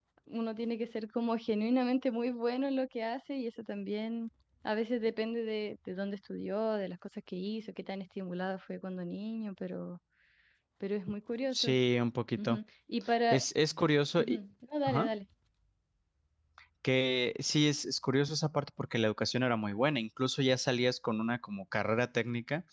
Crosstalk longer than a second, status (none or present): none